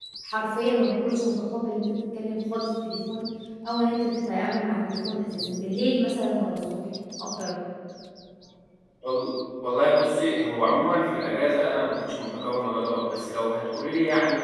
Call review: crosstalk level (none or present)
none